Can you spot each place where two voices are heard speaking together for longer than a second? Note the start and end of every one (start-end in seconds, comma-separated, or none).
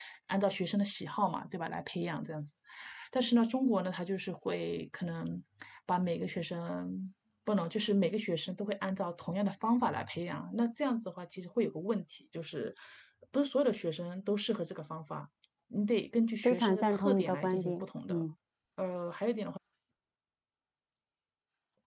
16.4-18.2